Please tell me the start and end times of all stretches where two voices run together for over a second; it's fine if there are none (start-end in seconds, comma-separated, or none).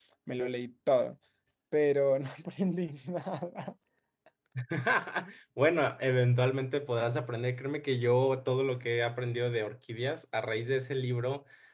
none